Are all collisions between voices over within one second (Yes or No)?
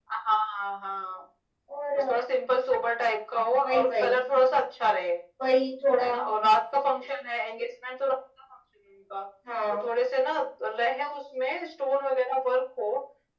Yes